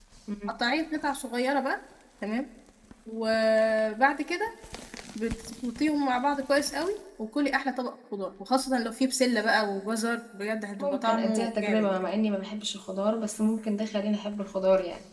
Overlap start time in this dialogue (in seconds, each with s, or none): 10.8 s